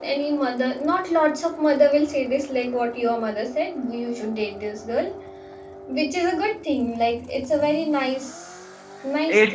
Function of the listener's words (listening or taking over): taking over